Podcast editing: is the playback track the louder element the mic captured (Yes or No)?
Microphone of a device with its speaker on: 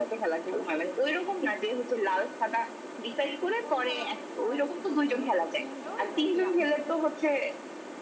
Yes